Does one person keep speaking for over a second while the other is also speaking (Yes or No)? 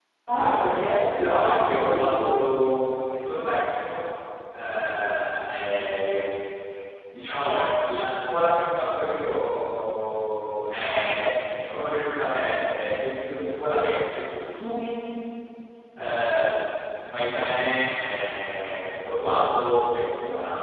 Yes